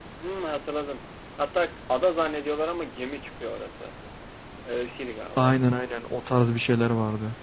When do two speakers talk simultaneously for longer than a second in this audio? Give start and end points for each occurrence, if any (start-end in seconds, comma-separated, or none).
none